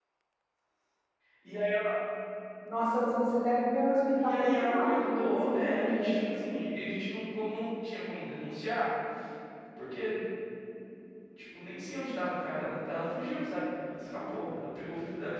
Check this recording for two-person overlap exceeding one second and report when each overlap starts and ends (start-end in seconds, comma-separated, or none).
4.2-6.1